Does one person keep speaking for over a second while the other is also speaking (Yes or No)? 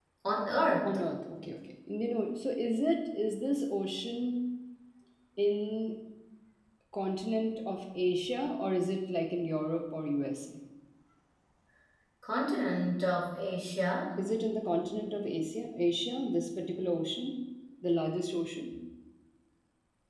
No